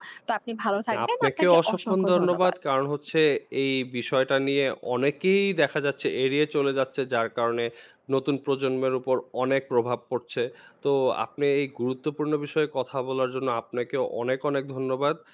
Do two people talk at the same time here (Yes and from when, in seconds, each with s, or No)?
Yes, from 0.9 s